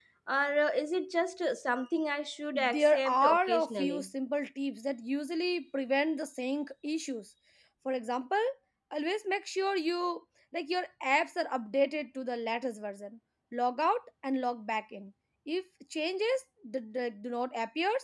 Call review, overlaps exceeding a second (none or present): present